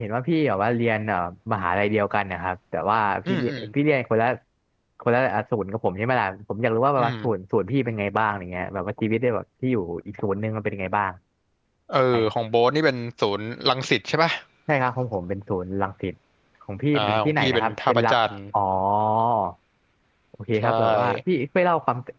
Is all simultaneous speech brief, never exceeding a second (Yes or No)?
No